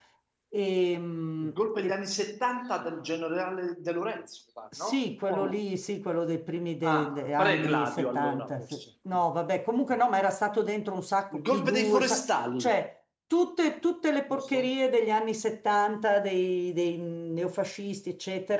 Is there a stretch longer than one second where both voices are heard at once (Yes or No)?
Yes